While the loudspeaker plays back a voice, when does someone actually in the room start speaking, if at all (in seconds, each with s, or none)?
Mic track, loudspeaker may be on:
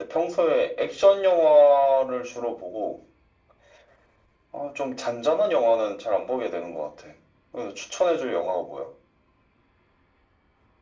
none